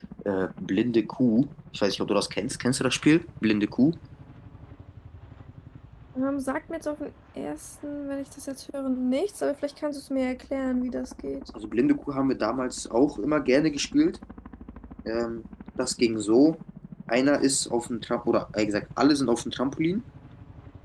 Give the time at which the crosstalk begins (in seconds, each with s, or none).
none